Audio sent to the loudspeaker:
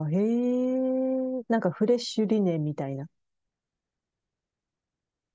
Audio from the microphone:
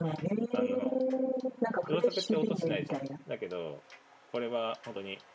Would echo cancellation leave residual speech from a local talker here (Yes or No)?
Yes